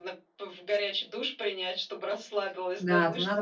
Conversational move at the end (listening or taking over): taking over